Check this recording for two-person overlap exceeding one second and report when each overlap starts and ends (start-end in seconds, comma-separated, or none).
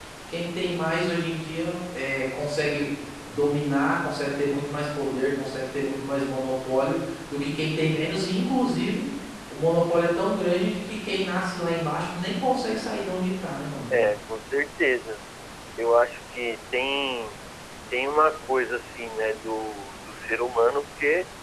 none